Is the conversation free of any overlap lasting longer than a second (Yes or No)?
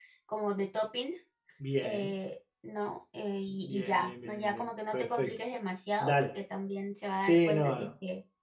No